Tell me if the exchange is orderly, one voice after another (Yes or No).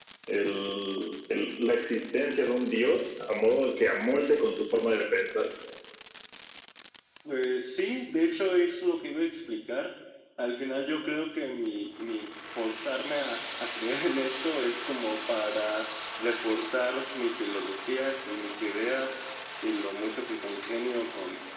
Yes